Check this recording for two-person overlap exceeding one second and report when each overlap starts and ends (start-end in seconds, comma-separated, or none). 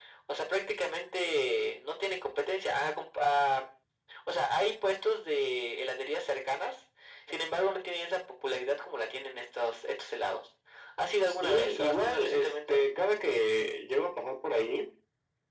11.3-12.8